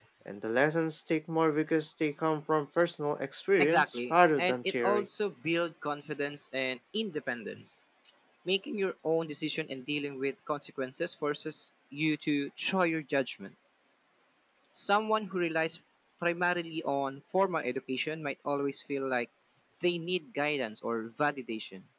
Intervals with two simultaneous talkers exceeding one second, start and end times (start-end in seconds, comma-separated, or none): 3.6-5.1